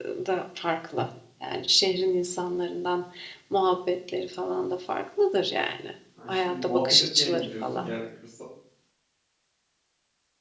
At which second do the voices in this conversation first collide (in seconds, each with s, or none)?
6.2 s